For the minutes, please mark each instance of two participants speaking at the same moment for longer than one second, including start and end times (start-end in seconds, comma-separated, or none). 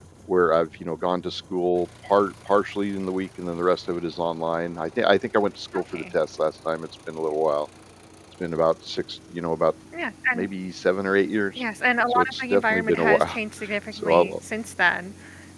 12.1-13.4